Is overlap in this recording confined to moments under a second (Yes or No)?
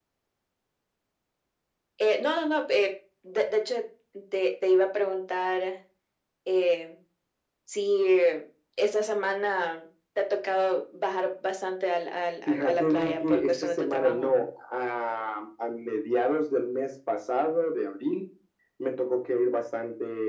No